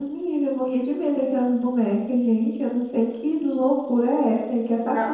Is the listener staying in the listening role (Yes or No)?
No